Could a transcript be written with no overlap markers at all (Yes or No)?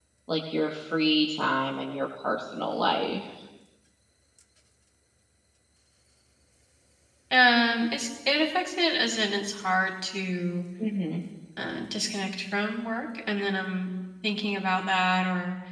Yes